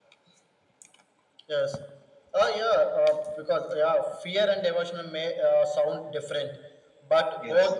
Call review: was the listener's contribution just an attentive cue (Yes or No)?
Yes